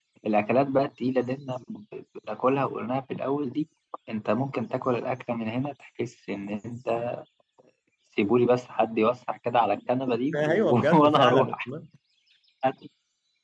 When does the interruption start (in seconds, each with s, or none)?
10.3 s